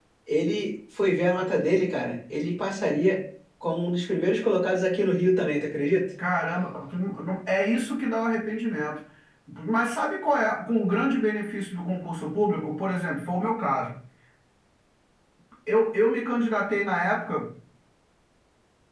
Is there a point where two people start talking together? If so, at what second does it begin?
none

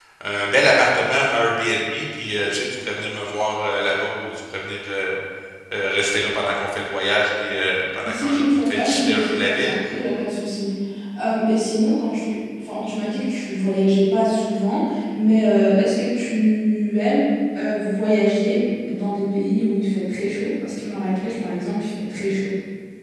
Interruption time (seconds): 8.0 s

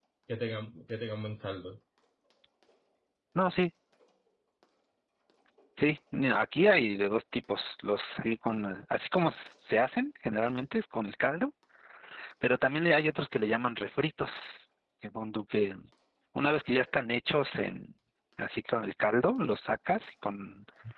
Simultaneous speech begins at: none

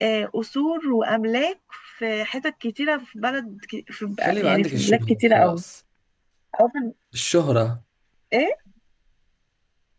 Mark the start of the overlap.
4.2 s

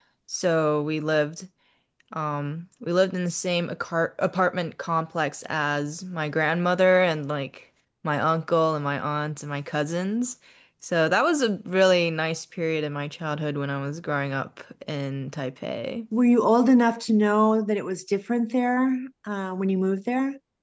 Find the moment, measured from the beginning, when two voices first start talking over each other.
none

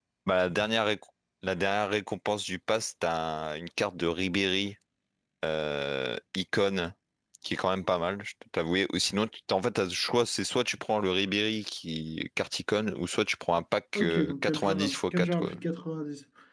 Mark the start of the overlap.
13.9 s

